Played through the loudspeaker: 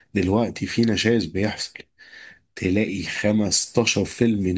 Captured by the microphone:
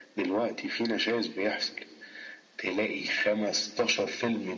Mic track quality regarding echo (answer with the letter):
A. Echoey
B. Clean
A